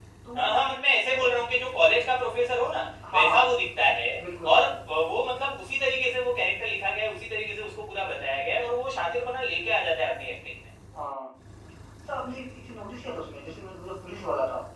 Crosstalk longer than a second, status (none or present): none